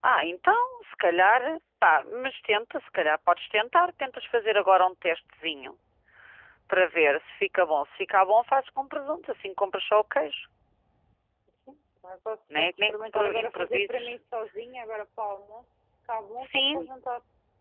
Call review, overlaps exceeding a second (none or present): present